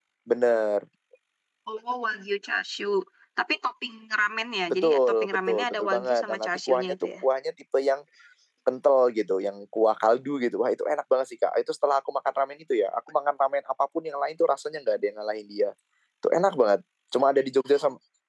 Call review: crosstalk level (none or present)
present